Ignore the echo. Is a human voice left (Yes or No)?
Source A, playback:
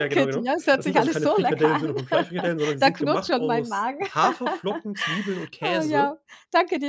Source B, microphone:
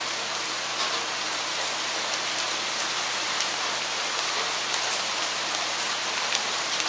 No